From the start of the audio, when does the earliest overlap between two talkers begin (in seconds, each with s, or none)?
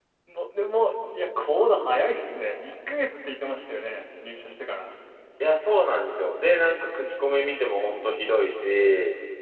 none